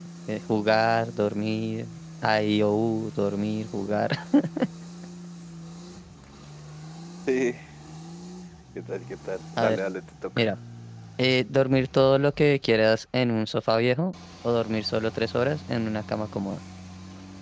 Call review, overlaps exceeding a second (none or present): none